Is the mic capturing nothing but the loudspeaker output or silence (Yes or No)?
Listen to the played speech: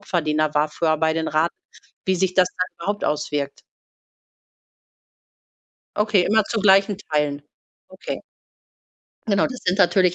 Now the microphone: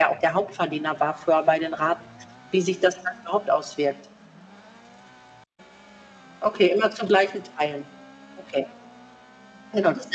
Yes